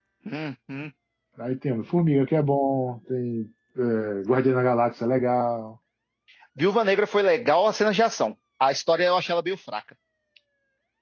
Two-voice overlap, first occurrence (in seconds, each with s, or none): none